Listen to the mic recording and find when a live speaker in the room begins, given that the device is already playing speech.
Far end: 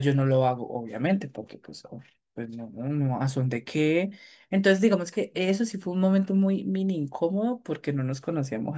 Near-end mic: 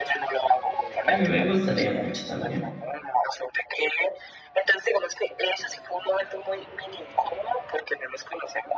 1.1 s

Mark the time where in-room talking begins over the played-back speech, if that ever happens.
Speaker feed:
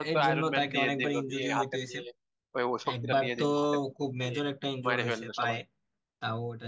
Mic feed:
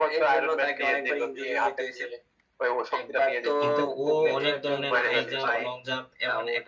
3.6 s

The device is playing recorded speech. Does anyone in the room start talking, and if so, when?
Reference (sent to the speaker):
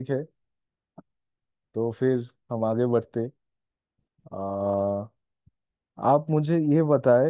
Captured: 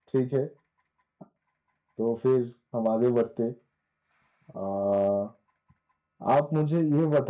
none

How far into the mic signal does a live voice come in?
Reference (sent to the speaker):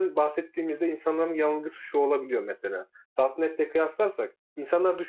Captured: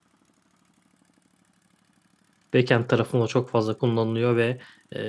2.5 s

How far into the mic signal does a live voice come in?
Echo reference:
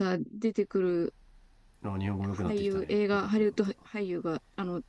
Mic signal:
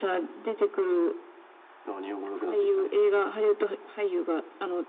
none

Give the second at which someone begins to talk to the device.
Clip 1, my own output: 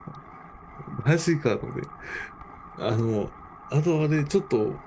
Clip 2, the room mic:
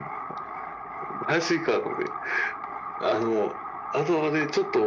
none

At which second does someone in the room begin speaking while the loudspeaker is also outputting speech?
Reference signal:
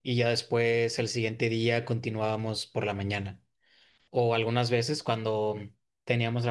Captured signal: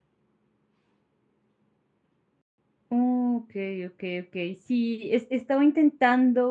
2.9 s

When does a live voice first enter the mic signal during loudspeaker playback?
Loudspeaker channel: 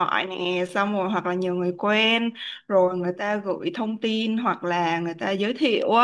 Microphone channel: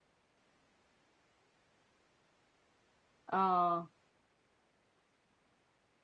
3.3 s

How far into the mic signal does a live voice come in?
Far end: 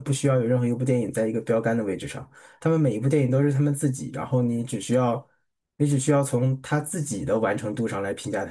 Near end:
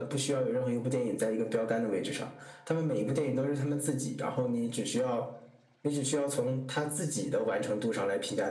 none

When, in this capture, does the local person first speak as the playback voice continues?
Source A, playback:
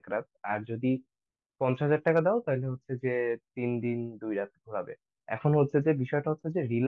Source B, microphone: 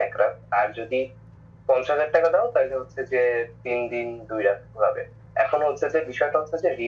none

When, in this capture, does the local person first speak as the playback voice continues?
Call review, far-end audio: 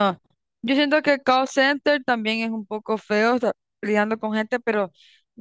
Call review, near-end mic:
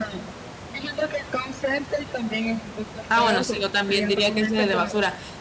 3.1 s

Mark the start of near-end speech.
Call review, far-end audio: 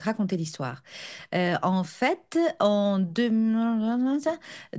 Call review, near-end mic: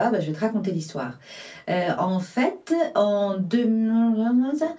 none

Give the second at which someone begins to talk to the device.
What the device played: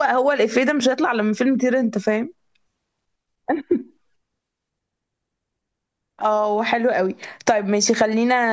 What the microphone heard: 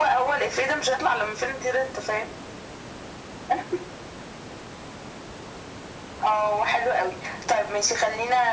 none

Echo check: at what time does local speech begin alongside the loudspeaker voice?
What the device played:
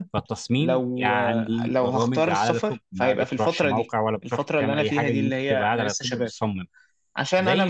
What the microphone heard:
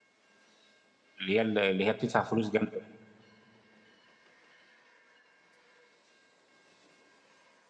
1.2 s

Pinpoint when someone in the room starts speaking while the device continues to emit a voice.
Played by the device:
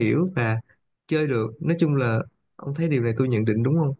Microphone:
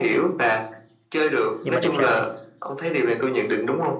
1.6 s

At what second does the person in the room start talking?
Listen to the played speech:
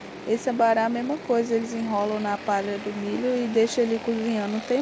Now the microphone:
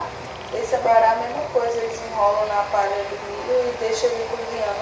none

